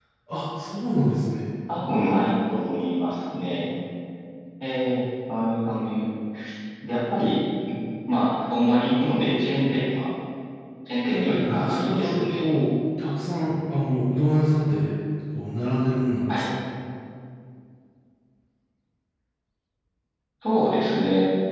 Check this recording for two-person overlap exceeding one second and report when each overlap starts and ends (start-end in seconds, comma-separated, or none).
11.0-12.4